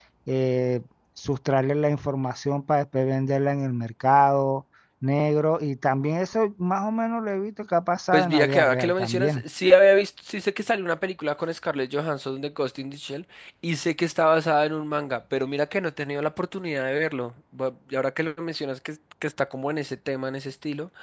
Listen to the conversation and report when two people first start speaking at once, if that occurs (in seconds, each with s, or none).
8.1 s